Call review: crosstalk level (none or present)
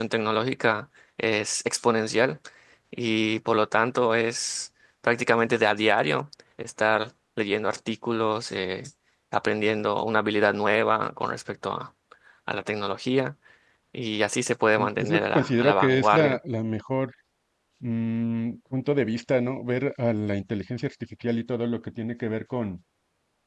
present